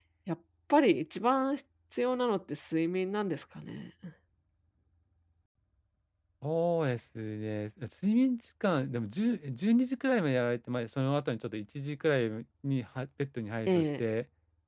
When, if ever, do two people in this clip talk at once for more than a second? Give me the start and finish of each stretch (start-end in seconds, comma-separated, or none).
none